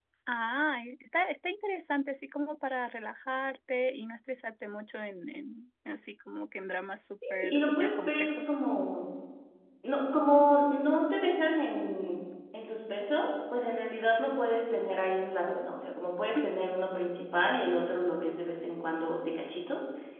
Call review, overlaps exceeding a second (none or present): present